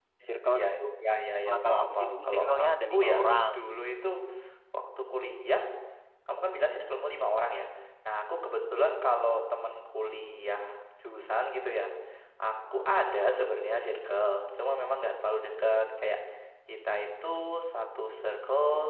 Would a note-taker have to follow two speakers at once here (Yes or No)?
Yes